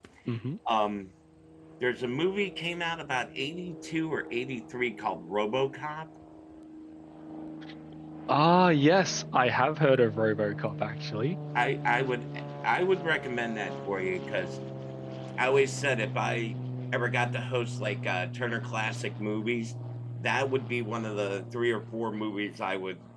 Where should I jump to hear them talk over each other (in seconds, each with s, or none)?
none